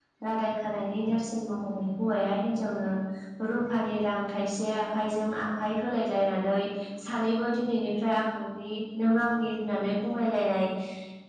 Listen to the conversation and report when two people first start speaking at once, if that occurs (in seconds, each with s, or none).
none